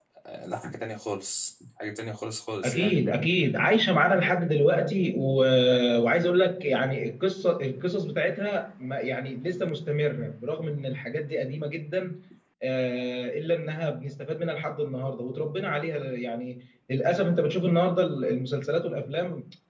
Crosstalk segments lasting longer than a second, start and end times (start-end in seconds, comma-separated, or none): none